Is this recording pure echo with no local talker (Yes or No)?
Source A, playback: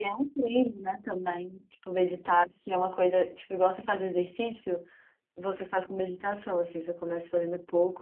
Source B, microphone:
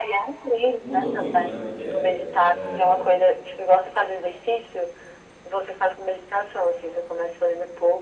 No